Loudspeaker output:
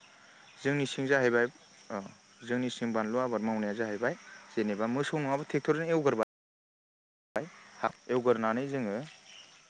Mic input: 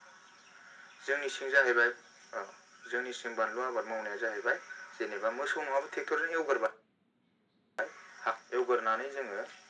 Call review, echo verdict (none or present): present